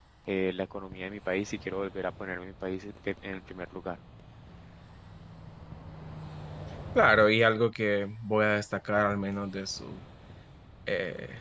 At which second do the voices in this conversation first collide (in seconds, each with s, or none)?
none